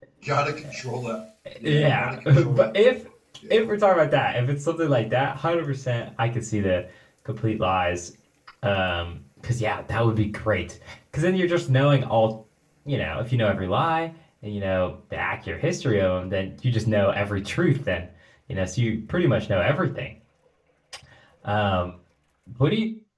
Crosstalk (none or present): present